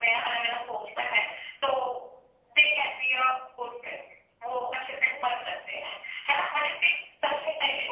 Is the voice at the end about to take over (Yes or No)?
No